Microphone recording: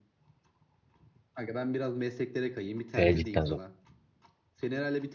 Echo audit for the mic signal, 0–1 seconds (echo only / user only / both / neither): neither